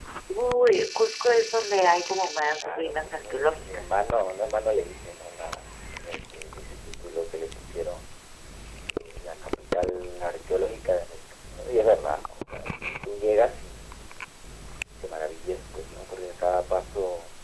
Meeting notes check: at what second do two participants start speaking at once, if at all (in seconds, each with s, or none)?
2.6 s